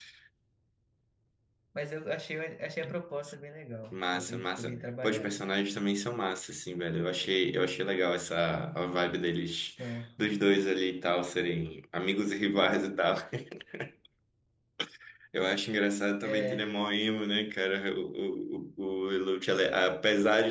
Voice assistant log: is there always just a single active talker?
No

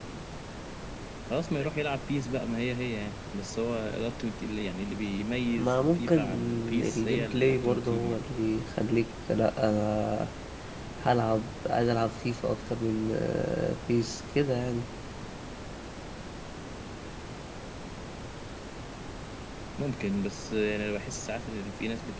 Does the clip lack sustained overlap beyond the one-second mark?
No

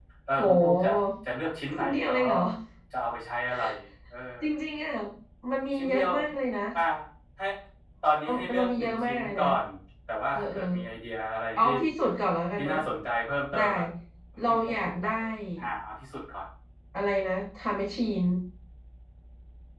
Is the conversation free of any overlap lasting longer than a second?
No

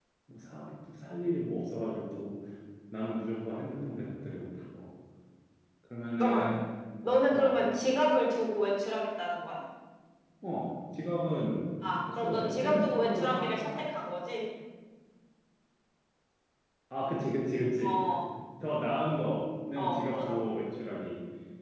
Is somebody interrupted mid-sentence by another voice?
Yes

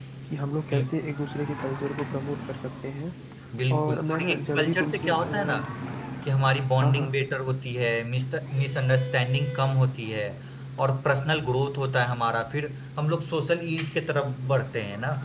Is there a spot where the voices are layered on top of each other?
Yes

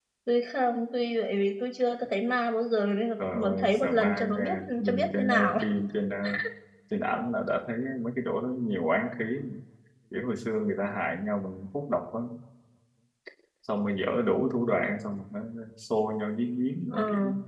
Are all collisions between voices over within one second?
No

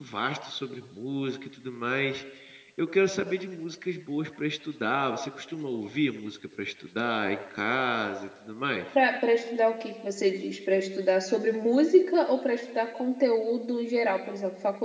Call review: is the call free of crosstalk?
Yes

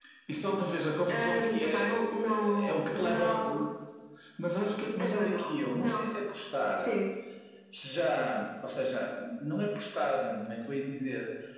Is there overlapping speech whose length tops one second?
Yes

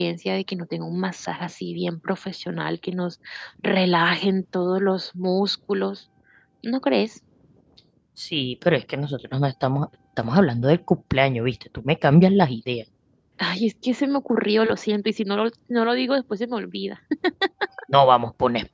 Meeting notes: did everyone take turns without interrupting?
Yes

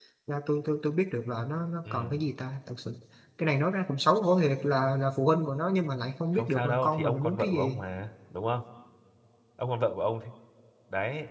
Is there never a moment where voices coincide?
No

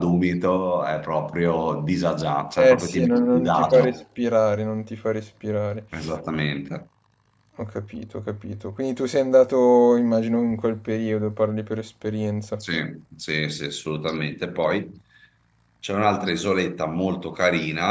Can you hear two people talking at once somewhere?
Yes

